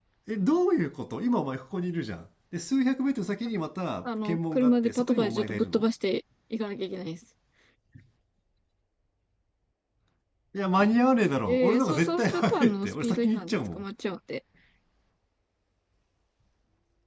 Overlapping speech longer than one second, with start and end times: 4.0-5.9, 11.5-13.8

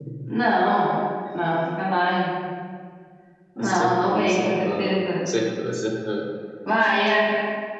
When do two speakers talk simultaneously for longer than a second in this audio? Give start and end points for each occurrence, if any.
3.6-4.8

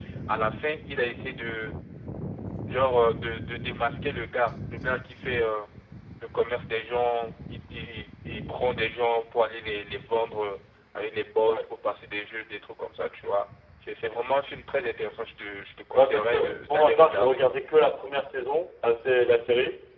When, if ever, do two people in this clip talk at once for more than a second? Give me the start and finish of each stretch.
16.0-17.5

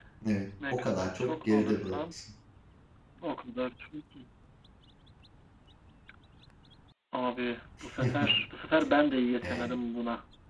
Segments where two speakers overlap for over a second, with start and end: 0.7-2.2

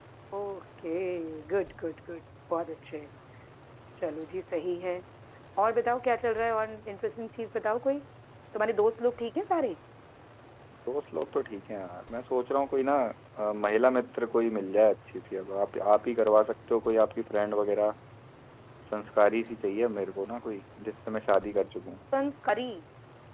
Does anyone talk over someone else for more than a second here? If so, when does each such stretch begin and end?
none

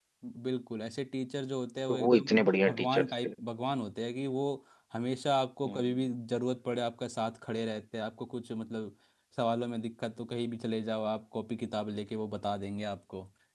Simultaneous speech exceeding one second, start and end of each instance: 1.9-3.3

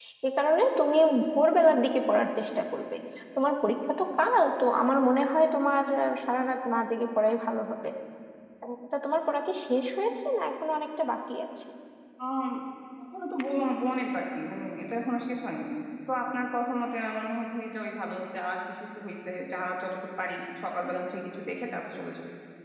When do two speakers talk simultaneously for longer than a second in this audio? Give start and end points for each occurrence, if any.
none

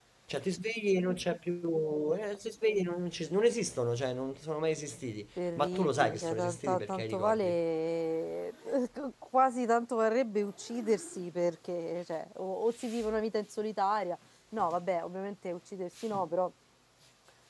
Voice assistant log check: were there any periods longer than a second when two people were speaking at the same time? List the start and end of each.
5.4-7.5

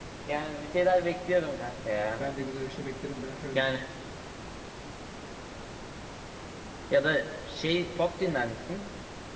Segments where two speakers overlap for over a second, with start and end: none

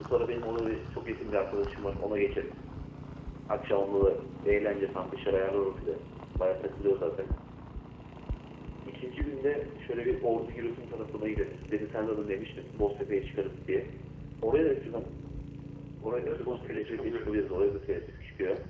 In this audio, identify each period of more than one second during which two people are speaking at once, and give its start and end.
16.2-17.4

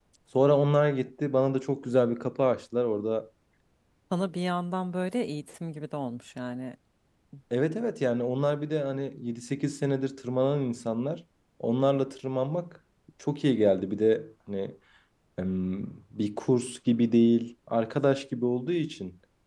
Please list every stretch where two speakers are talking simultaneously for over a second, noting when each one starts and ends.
none

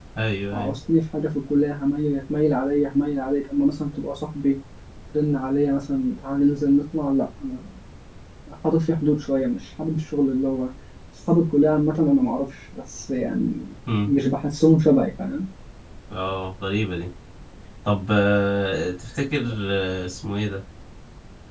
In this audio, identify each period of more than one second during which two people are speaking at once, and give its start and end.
none

